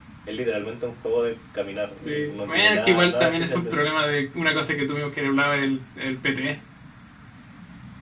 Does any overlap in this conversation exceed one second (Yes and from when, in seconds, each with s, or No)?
Yes, from 2.0 s